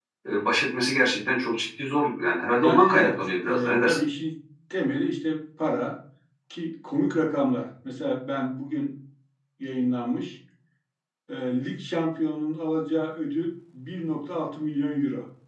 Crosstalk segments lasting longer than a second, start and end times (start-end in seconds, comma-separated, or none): 2.6-4.0